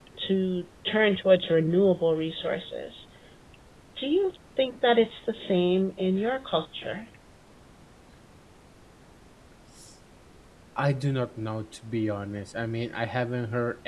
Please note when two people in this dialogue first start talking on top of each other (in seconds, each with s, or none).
none